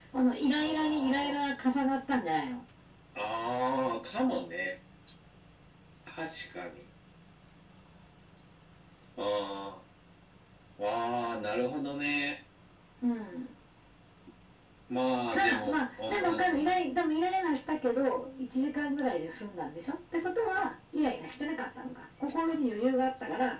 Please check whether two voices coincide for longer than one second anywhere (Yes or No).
Yes